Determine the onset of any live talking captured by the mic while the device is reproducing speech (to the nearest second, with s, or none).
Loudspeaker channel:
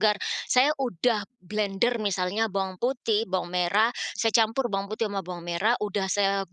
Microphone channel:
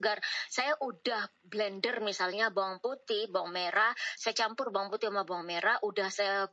none